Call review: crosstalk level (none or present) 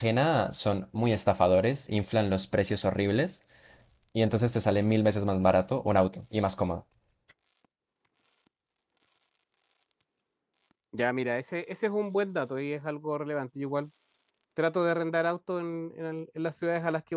none